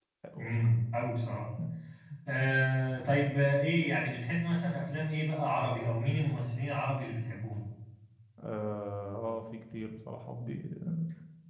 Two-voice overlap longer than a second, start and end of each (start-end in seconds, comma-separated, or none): none